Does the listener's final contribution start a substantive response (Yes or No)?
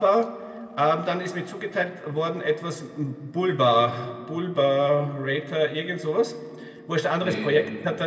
No